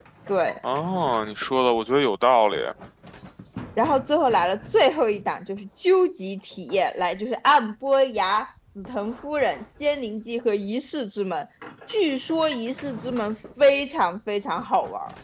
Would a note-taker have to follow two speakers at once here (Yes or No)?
No